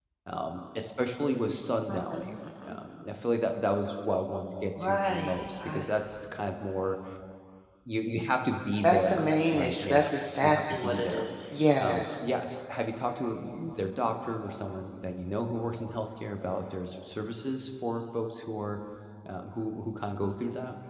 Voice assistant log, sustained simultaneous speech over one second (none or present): present